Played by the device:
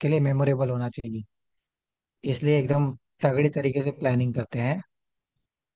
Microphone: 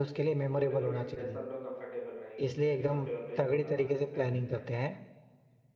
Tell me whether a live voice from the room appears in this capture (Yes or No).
Yes